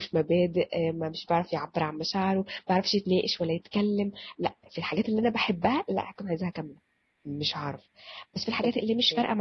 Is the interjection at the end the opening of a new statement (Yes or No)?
No